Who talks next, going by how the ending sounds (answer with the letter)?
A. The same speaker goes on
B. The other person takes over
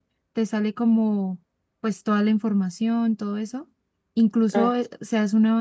A